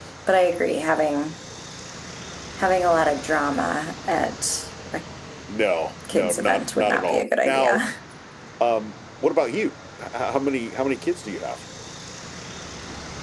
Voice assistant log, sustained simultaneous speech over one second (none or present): present